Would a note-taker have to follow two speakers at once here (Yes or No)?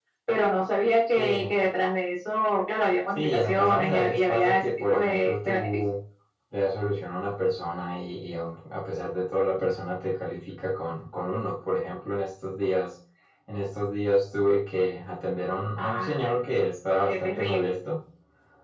Yes